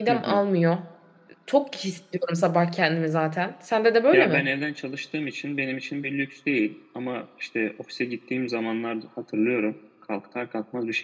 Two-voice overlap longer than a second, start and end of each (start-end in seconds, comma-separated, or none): none